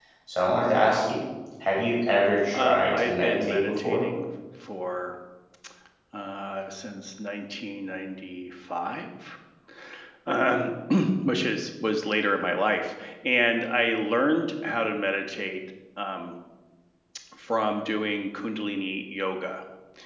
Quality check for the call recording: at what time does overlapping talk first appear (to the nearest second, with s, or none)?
3 s